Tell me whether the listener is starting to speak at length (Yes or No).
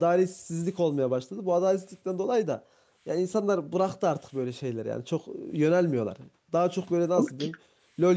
No